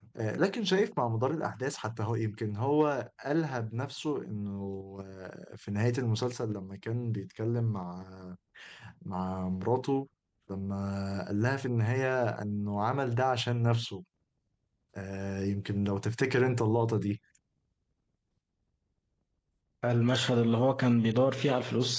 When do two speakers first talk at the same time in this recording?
none

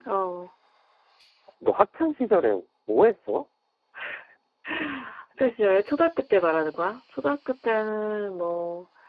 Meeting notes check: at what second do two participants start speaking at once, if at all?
none

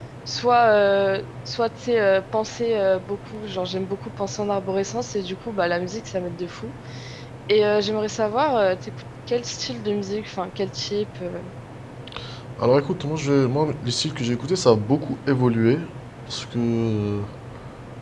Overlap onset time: none

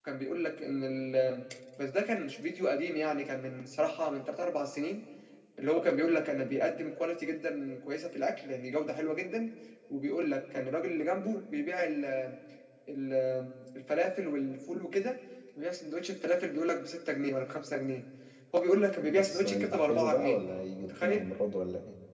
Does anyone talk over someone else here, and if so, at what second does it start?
19.0 s

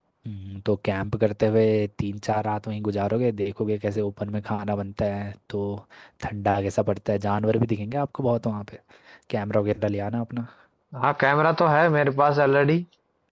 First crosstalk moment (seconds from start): none

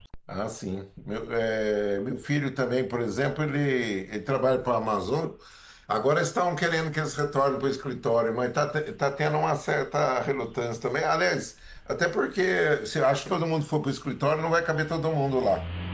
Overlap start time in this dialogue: none

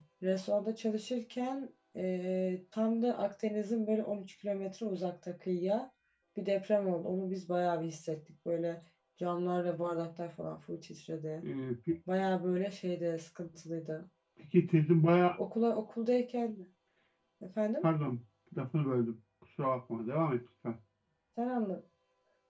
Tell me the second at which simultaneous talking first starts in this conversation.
none

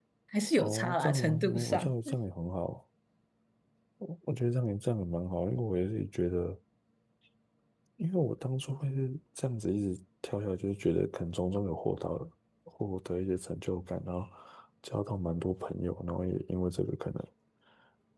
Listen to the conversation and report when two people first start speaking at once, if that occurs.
0.6 s

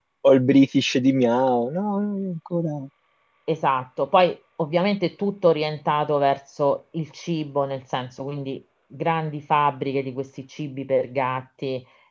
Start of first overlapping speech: none

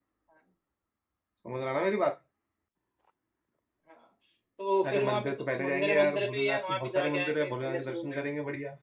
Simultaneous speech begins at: 4.9 s

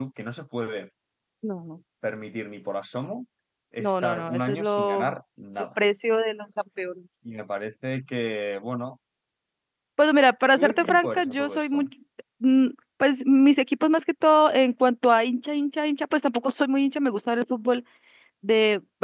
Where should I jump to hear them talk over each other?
3.8 s

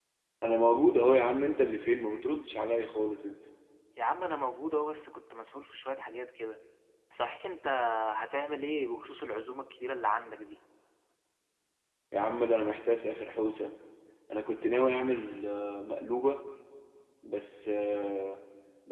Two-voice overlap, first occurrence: none

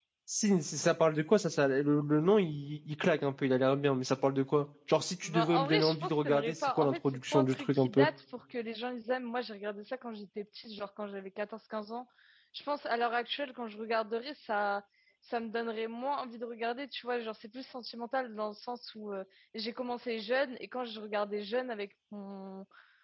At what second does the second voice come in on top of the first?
5.2 s

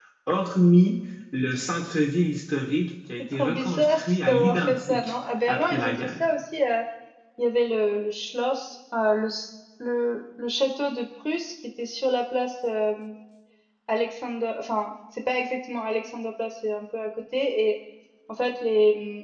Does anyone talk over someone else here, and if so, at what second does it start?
3.3 s

